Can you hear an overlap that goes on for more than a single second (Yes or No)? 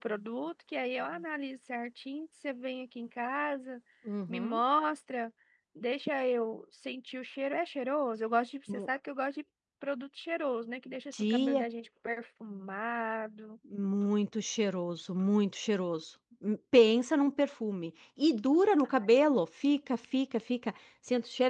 No